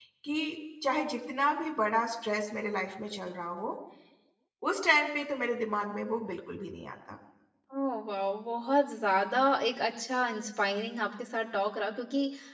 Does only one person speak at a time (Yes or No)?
Yes